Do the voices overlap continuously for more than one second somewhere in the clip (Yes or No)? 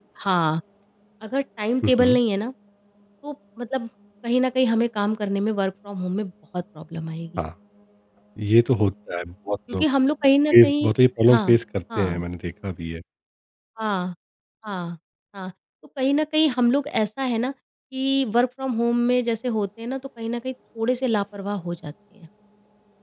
No